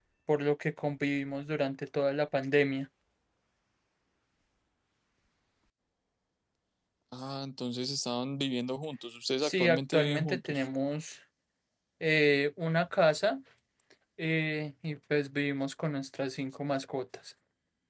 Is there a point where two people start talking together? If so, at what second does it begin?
9.4 s

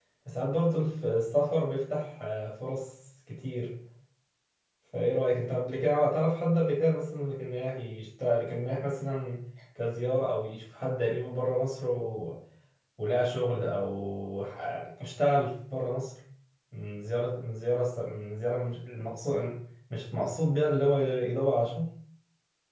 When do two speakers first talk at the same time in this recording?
none

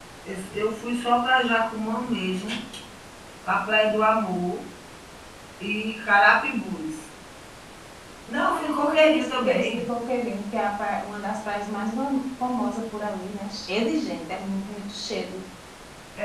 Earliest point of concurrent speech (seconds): 8.4 s

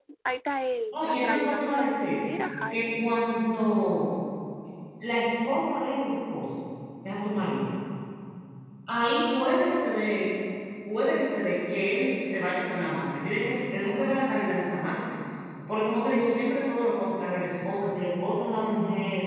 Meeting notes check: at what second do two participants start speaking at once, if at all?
0.9 s

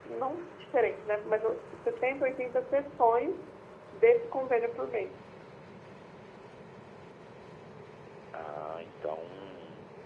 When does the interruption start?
none

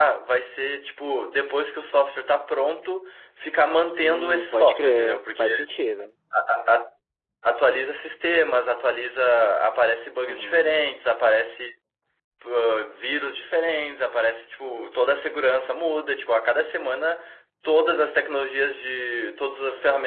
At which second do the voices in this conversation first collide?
4.0 s

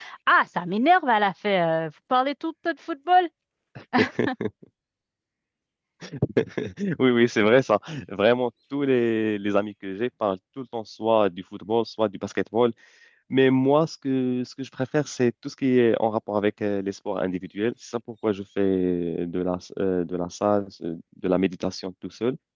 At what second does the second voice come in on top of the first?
none

